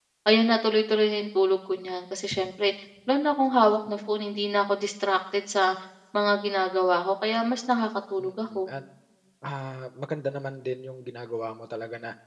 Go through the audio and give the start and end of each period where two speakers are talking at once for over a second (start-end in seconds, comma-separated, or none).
none